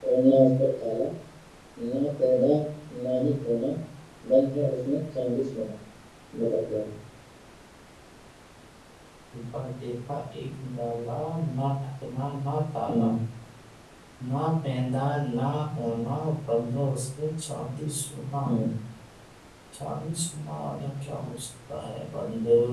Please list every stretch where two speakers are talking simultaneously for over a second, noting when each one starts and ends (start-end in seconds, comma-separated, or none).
none